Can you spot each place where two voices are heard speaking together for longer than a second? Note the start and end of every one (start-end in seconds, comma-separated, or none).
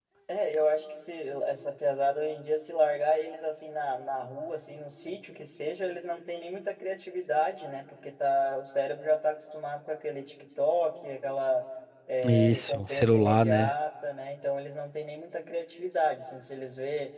12.2-13.7